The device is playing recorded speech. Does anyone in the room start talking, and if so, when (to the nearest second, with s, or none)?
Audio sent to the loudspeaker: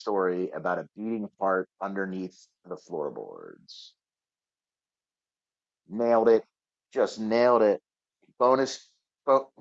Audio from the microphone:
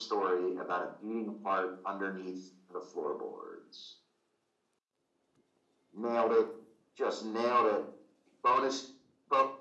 none